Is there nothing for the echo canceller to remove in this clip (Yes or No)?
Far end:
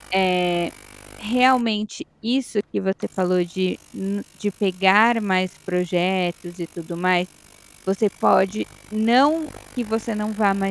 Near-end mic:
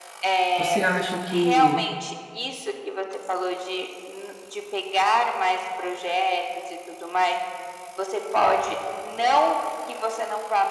No